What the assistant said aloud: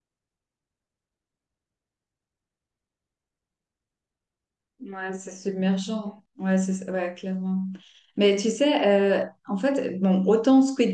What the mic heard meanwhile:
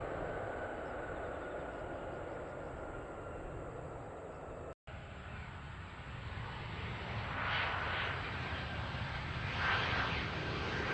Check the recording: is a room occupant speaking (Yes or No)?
No